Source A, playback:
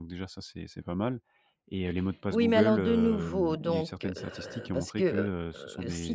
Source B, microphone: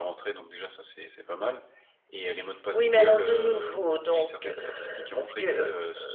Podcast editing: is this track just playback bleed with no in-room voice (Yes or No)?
Yes